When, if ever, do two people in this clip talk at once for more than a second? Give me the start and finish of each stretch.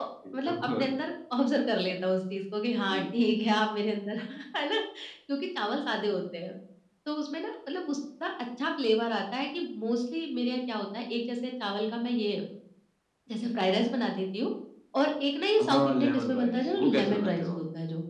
15.6-17.6

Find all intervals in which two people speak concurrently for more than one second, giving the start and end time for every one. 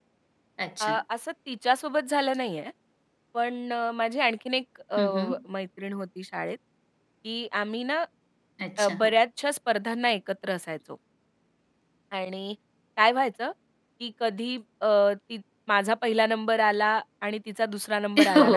none

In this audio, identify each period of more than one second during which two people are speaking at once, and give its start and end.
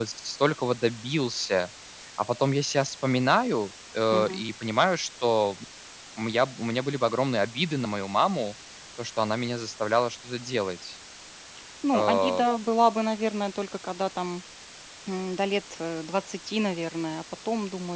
none

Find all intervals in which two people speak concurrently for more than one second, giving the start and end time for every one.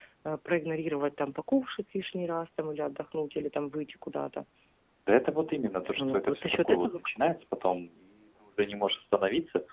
6.0-7.3

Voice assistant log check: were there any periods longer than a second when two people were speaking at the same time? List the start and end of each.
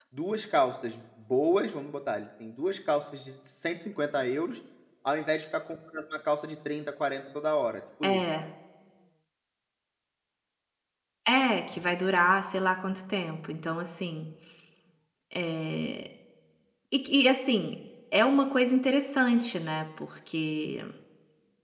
none

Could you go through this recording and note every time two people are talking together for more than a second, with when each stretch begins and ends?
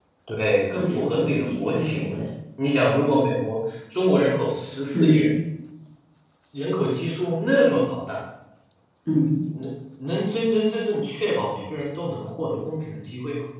0.7-2.2

